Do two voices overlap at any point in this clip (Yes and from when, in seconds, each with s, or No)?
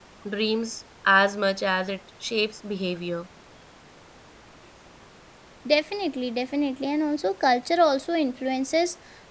No